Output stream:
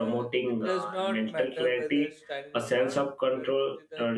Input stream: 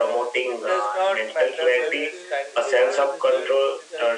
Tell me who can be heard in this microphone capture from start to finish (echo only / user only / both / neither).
both